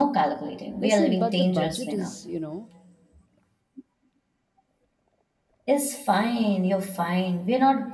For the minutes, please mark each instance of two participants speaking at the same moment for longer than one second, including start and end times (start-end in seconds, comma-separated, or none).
0.8-2.1